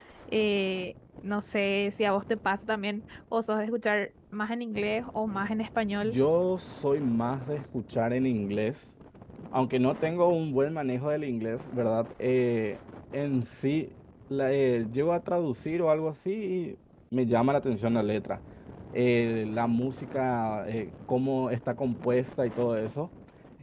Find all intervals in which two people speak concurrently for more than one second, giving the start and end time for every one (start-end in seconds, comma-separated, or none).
none